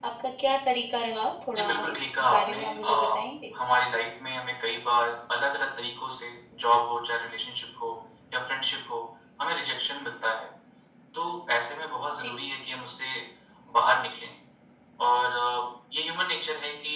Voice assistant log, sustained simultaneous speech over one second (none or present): present